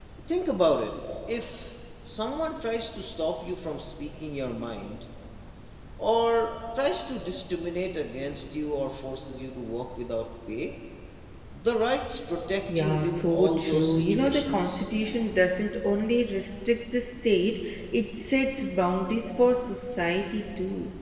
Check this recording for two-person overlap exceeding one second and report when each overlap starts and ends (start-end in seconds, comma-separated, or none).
12.8-14.8